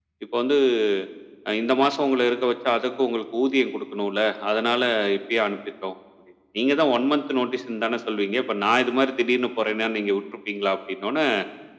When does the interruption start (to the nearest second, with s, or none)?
none